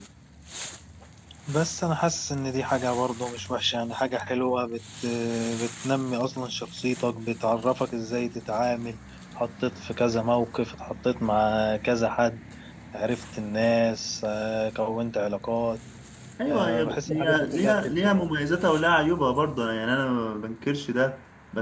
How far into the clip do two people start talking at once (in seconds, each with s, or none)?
16.5 s